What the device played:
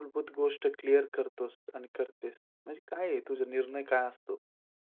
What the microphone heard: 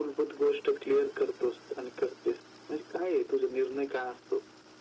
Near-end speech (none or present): none